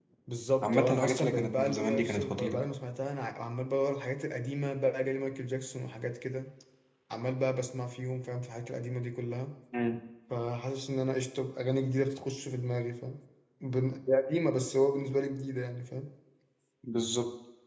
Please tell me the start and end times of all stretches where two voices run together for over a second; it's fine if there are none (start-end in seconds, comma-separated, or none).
0.6-2.6